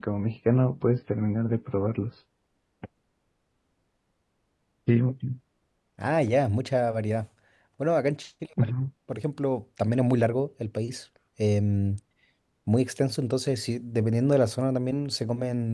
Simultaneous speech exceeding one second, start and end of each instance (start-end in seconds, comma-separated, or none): none